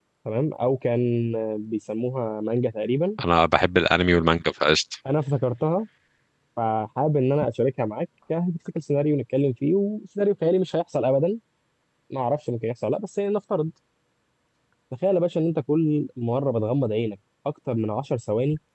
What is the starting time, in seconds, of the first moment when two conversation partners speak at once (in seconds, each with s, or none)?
none